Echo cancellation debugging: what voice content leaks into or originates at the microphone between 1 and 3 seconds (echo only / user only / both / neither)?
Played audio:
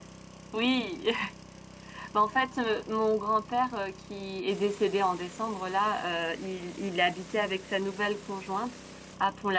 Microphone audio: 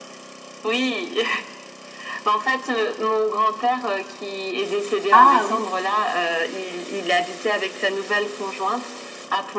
echo only